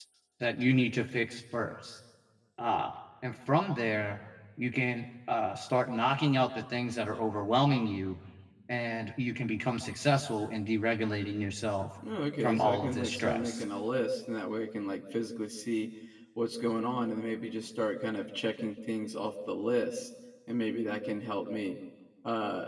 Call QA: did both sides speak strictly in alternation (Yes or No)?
No